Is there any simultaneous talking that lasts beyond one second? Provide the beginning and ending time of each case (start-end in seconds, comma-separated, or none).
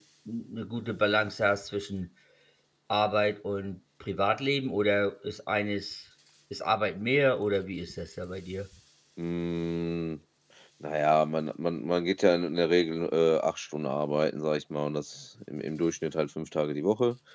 none